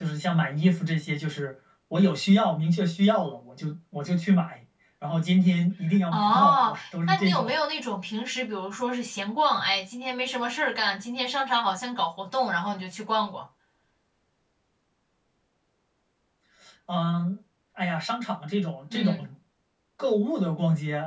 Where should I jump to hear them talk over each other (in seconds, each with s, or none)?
6.1 s